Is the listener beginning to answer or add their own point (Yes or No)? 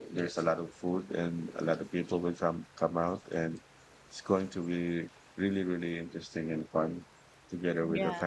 No